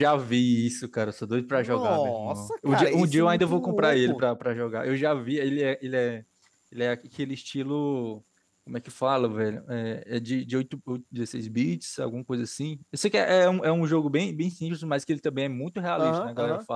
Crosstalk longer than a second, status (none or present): present